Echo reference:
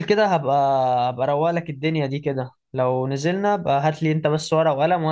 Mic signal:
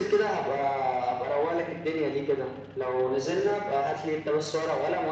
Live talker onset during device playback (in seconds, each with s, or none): none